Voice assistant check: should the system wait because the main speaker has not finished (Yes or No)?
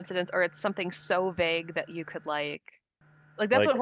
Yes